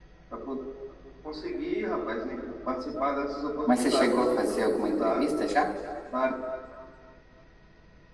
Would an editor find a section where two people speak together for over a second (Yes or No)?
Yes